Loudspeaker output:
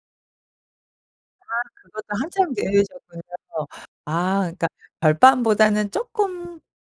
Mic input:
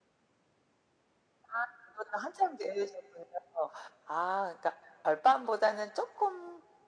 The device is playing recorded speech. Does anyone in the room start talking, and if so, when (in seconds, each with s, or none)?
none